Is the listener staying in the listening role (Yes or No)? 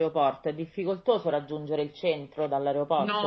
No